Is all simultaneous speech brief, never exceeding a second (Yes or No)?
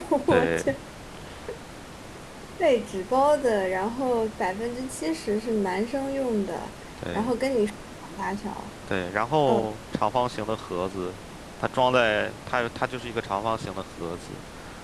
Yes